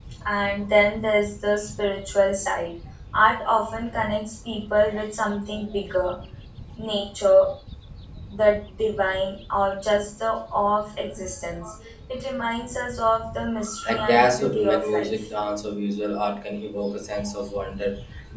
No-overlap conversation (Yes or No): No